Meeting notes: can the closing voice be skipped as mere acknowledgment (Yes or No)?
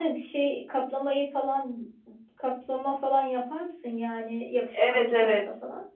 No